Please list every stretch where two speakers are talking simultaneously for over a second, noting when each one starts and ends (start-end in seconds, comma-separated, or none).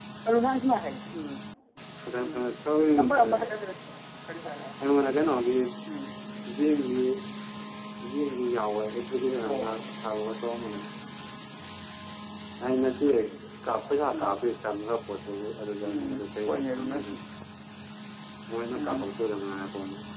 15.8-17.1